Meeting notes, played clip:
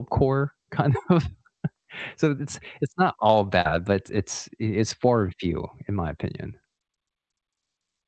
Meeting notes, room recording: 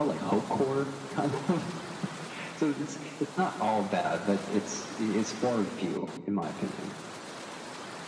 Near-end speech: none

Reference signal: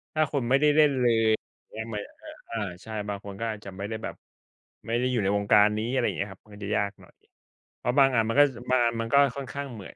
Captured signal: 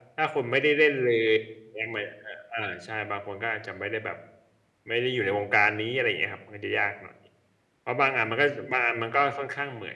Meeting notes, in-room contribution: none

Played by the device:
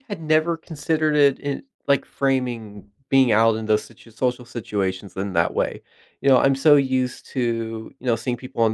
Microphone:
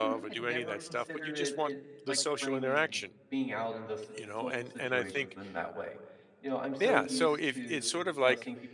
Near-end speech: present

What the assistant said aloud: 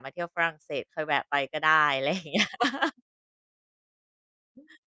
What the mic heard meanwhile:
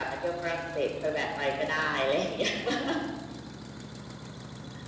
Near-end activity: none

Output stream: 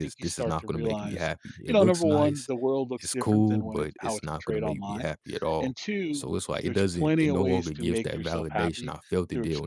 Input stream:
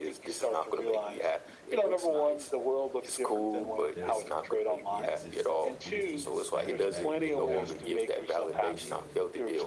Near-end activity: present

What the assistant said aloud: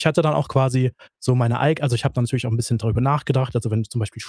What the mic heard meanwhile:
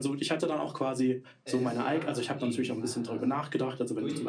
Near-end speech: present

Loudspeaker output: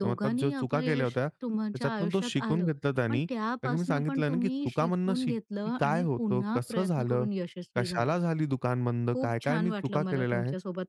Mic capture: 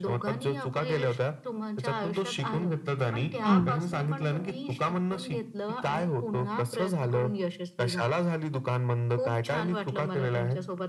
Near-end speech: present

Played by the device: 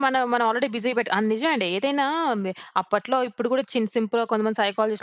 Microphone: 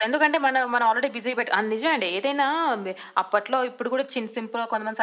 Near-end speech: none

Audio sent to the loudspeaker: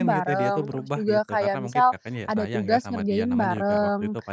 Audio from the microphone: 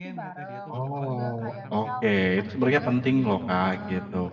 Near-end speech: present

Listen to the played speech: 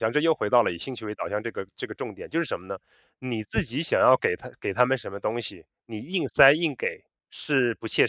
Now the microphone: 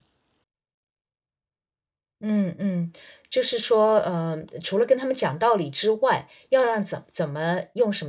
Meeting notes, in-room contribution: present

